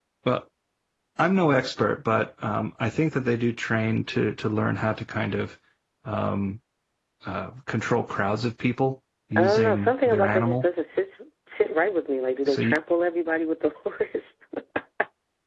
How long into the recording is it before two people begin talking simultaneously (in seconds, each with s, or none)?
9.3 s